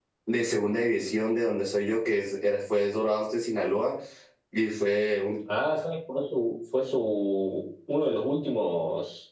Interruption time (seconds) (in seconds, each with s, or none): none